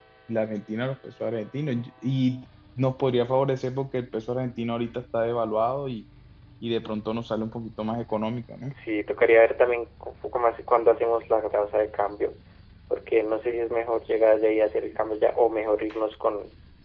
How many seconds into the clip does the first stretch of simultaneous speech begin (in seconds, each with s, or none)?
none